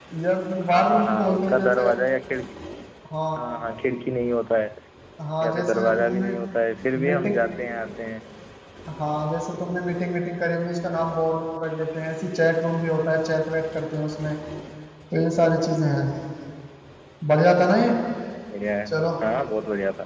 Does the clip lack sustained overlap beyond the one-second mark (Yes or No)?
No